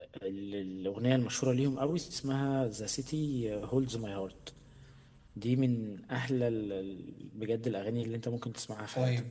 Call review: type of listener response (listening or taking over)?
taking over